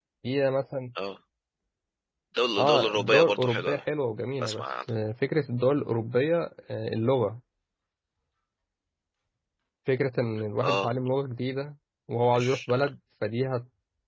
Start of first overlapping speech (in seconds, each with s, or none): 2.6 s